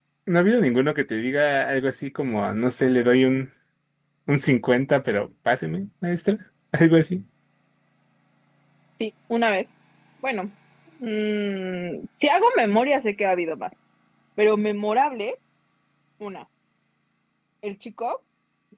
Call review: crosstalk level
none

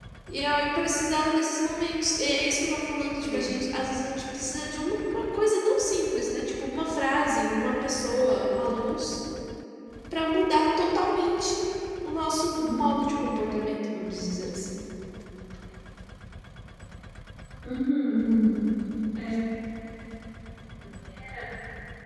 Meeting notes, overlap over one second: none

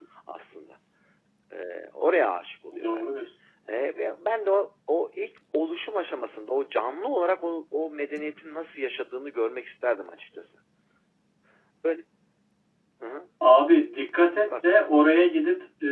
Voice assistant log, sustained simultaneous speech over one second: none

